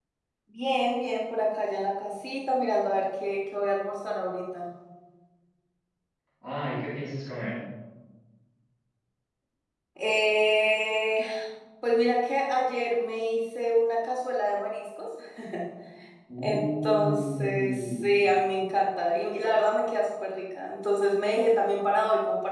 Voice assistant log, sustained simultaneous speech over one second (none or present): present